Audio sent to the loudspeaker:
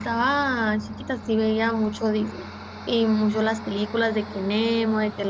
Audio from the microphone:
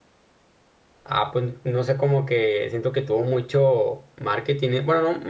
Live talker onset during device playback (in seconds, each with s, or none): 1.0 s